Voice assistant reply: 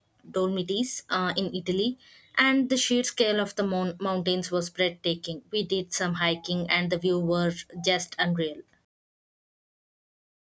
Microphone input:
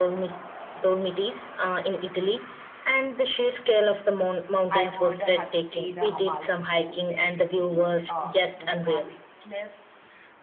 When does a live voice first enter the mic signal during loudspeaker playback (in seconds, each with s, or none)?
4.7 s